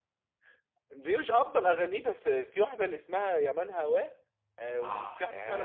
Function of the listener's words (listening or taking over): taking over